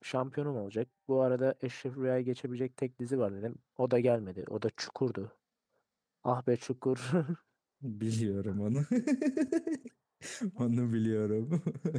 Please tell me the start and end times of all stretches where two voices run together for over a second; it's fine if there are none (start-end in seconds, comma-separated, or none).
none